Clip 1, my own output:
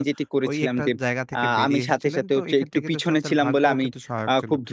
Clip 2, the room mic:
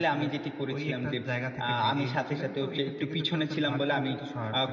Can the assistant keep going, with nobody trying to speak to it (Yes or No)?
Yes